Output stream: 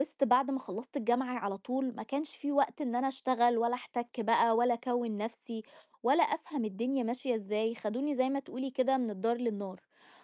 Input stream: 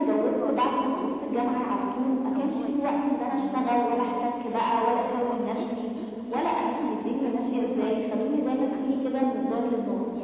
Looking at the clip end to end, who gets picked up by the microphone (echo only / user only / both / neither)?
both